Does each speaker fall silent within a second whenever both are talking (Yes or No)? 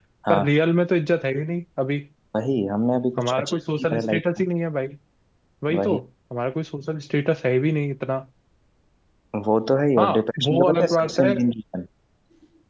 No